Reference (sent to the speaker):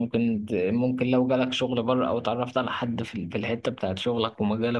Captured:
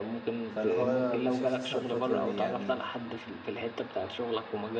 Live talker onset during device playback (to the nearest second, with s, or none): 0 s